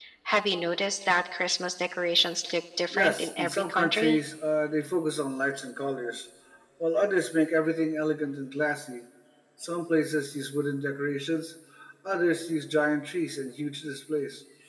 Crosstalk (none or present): present